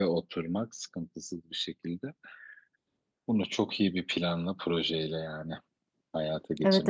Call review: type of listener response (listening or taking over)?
taking over